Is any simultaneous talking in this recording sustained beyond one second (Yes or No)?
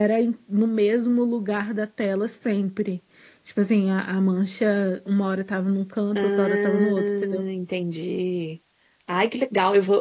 Yes